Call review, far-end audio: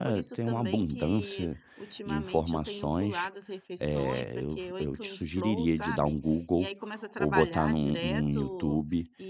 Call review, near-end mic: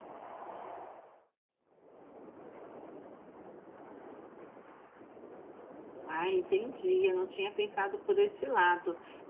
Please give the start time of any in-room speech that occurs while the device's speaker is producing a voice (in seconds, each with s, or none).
6.0 s